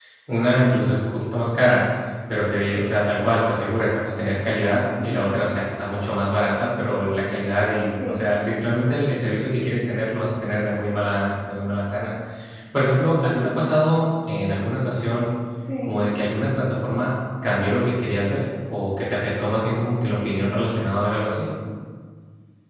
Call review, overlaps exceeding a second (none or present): none